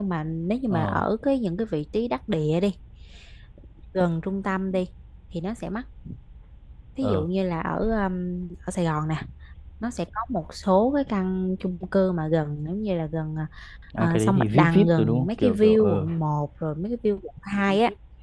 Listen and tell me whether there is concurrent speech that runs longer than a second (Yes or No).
Yes